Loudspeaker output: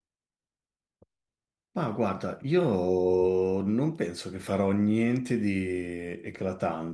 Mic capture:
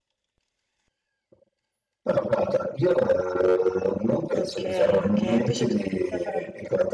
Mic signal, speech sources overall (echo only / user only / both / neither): both